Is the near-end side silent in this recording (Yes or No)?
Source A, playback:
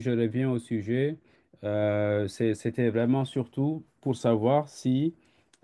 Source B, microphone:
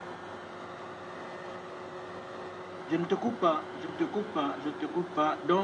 No